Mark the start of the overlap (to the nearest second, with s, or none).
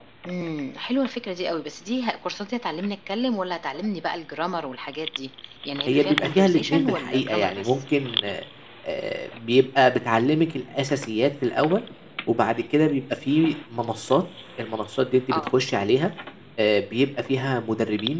6 s